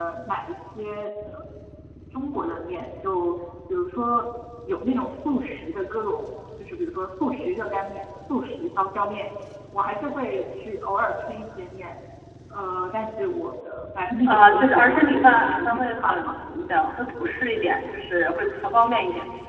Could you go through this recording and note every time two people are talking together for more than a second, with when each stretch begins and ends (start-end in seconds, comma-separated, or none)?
14.3-16.3